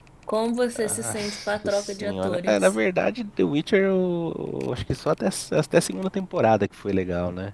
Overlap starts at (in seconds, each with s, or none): 0.8 s